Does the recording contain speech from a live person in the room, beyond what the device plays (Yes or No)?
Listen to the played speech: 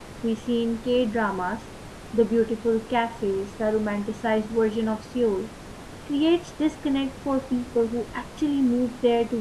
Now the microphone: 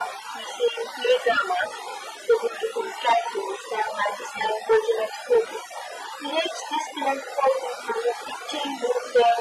No